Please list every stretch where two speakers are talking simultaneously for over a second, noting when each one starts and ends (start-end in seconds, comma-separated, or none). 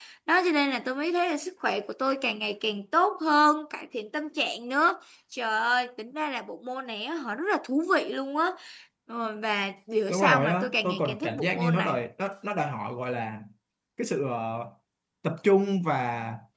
10.1-11.9